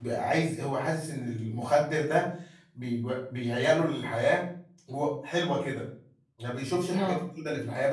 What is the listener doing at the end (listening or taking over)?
listening